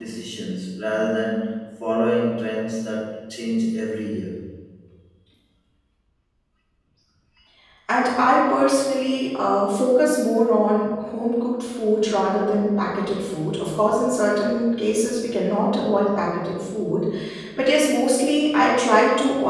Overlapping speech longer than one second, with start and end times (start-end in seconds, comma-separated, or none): none